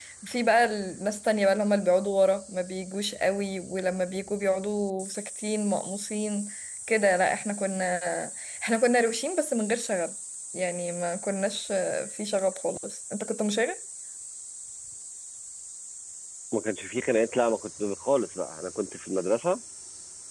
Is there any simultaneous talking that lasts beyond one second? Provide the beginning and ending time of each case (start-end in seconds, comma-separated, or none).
none